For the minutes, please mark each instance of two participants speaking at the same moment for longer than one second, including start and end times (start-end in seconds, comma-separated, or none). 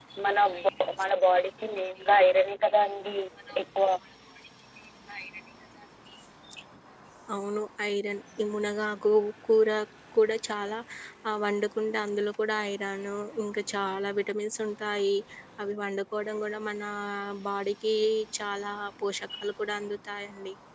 none